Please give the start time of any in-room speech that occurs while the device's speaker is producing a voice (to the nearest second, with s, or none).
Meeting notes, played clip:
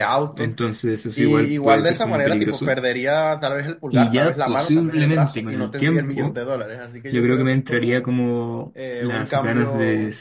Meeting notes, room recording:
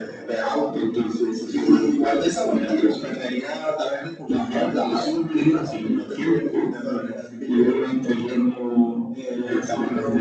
none